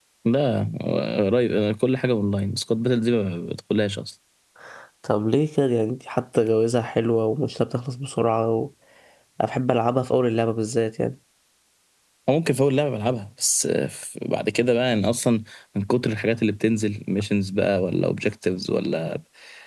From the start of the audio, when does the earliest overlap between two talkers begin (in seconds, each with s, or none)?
none